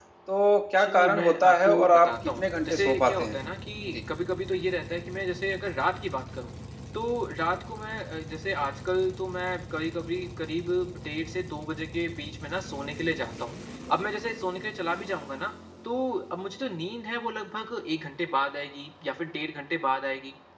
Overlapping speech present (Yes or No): Yes